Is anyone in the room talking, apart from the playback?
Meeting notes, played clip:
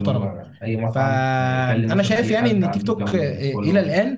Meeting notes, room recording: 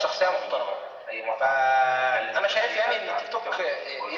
No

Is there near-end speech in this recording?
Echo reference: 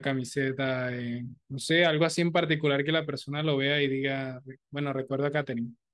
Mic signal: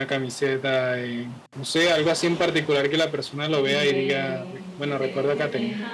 Yes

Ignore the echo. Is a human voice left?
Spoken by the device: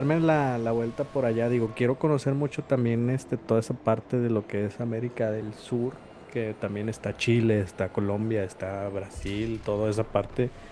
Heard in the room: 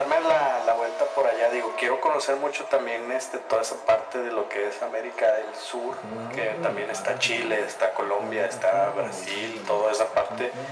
Yes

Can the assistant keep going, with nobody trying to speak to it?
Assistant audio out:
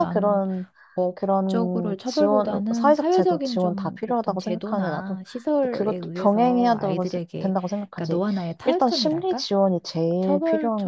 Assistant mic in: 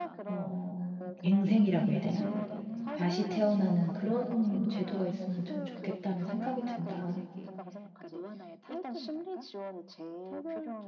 No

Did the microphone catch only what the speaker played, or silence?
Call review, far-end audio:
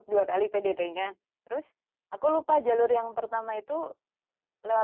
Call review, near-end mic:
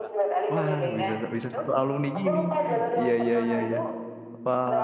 No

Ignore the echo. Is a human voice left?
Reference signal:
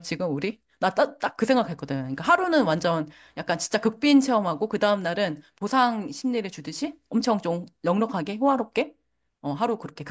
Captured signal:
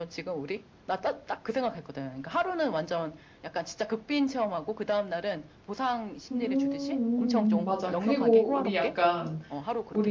Yes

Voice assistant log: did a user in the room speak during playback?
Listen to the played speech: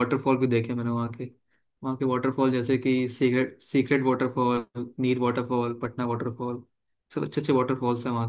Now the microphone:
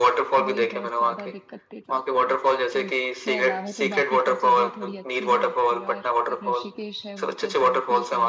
Yes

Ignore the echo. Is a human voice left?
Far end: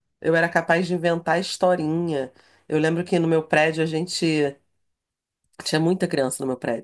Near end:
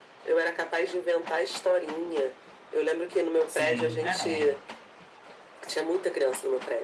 Yes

